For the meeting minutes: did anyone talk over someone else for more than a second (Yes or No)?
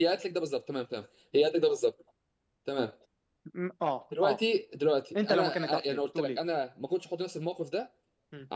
Yes